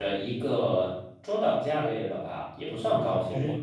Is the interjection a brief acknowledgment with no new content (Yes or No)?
No